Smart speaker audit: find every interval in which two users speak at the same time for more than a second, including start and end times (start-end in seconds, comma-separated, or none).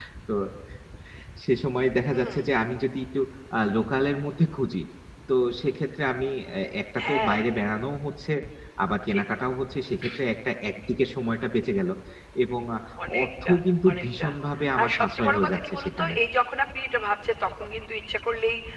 14.8-16.1